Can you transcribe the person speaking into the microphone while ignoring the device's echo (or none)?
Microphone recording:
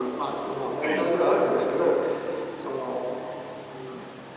はい、